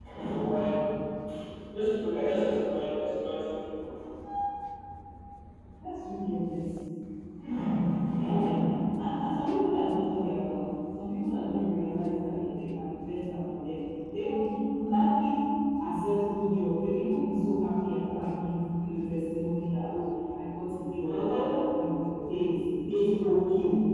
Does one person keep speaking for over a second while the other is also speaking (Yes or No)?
No